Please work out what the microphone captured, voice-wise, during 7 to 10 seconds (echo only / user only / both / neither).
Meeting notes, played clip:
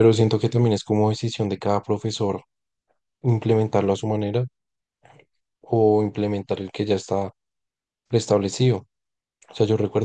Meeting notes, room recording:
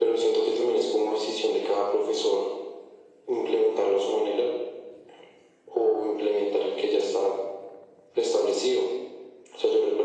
echo only